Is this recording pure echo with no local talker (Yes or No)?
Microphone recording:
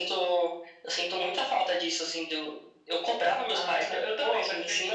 Yes